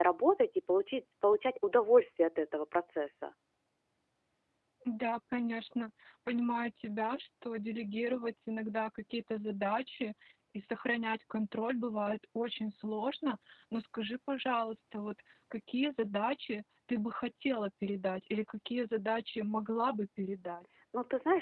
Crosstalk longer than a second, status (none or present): none